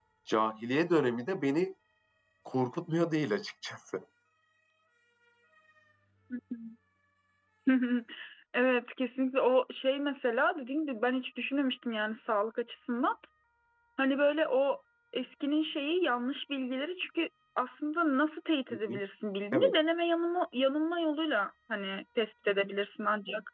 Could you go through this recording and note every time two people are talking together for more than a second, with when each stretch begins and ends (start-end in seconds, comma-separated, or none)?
none